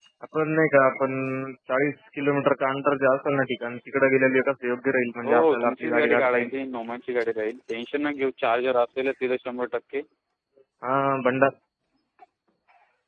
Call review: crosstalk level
present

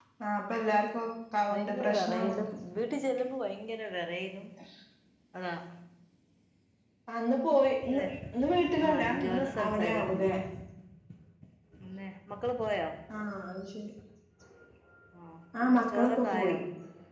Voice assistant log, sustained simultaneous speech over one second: present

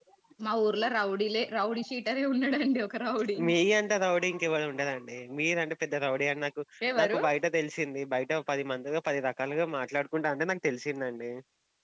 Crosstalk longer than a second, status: none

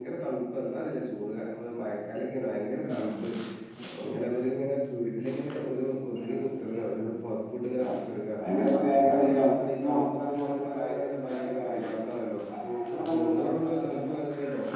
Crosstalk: present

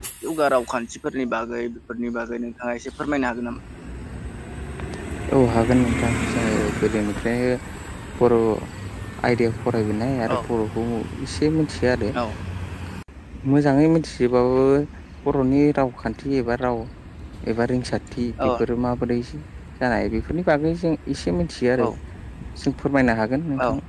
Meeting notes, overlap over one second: none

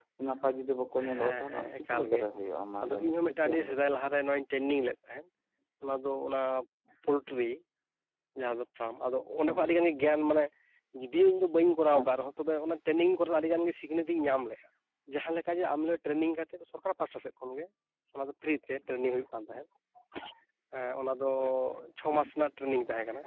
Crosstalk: present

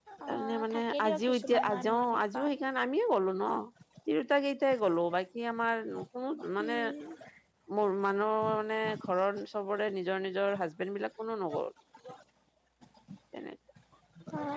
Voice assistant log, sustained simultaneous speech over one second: present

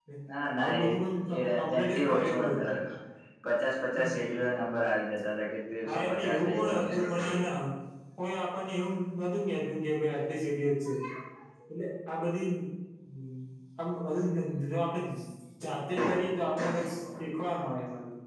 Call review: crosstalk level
present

